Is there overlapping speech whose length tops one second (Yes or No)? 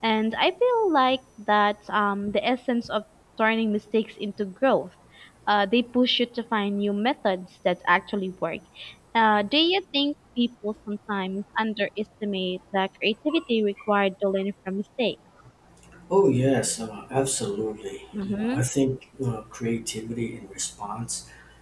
No